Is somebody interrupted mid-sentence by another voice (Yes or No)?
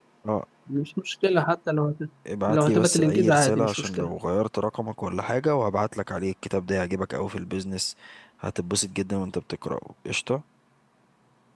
Yes